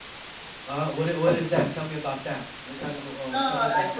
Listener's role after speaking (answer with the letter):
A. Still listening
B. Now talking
B